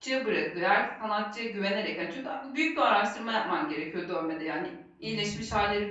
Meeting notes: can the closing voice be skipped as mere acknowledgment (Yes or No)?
Yes